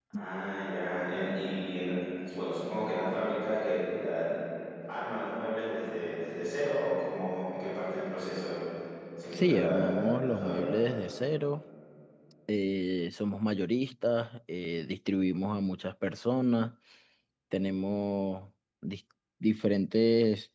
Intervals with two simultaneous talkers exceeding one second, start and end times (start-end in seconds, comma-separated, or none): 9.3-10.6